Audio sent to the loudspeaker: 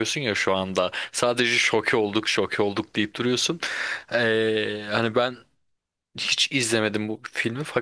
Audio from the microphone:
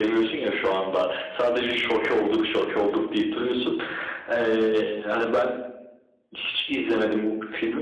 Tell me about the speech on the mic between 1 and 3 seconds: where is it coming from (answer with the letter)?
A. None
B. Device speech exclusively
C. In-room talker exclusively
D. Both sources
B